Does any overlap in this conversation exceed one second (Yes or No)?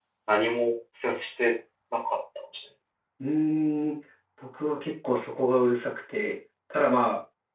No